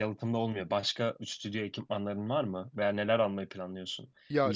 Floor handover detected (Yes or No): No